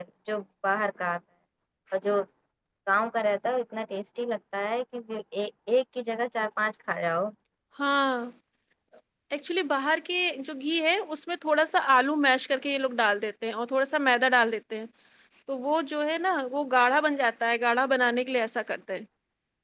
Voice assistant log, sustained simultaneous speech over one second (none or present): none